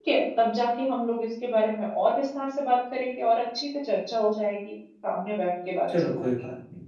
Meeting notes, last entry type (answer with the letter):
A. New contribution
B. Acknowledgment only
A